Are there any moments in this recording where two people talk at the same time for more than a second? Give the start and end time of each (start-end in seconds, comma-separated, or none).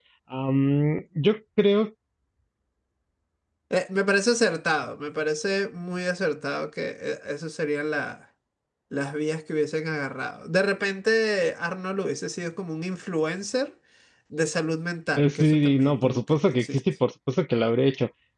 15.2-16.8